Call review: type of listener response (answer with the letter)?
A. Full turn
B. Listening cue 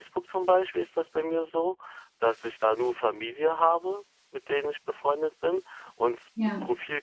B